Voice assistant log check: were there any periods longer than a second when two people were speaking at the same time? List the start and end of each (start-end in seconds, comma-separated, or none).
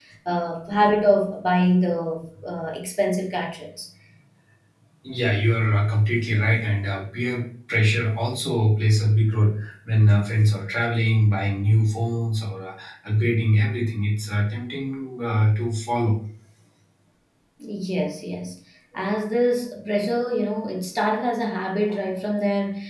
none